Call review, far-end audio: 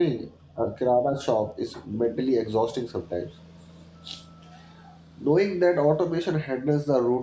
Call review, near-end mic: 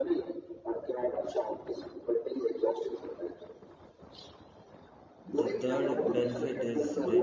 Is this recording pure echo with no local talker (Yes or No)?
No